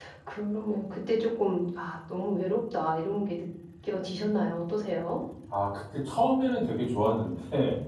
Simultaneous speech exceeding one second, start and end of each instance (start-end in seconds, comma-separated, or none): none